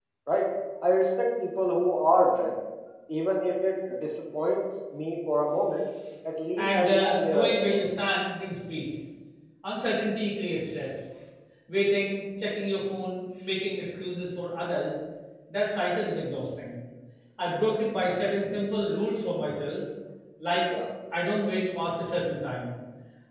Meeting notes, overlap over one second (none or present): present